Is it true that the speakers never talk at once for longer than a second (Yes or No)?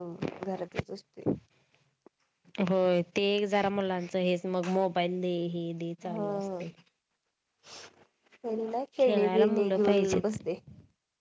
No